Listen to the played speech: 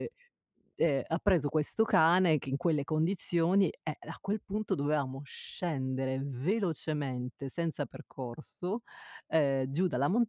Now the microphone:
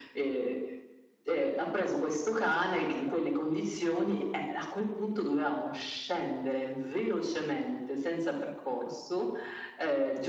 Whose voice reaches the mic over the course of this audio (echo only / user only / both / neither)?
echo only